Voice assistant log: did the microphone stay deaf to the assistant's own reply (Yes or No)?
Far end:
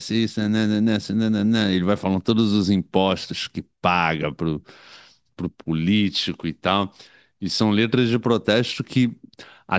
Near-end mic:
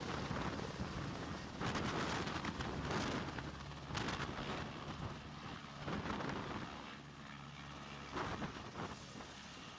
Yes